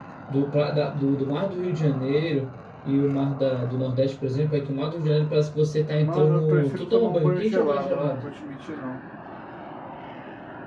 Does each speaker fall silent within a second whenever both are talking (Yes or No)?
No